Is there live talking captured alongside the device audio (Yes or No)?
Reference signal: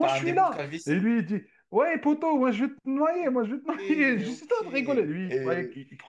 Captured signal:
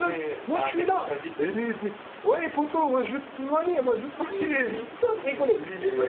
No